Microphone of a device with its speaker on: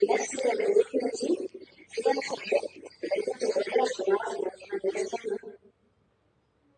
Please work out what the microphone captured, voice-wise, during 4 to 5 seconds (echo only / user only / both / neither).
echo only